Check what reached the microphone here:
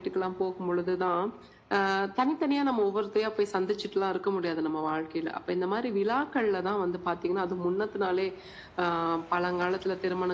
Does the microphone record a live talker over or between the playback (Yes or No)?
No